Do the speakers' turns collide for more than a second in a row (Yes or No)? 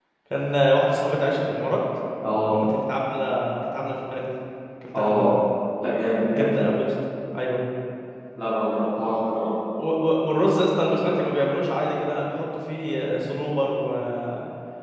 No